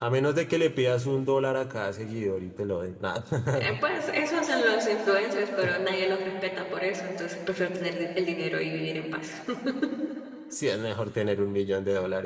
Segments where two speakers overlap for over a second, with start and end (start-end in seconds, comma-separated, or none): none